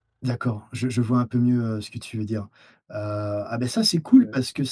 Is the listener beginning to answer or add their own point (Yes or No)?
No